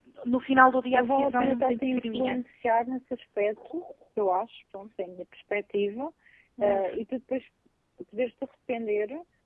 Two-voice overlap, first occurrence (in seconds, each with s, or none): 0.9 s